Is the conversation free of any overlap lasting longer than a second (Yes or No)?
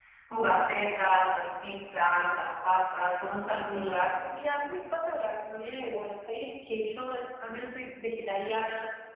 Yes